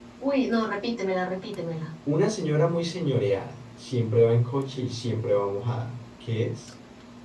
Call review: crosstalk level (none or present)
none